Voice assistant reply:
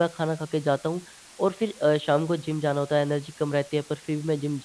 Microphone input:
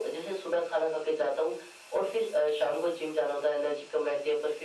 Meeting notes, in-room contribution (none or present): none